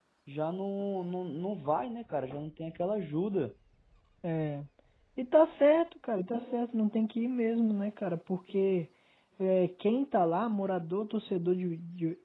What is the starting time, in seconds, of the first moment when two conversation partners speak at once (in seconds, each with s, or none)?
none